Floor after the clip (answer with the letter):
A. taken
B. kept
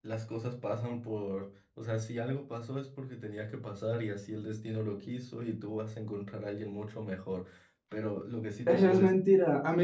A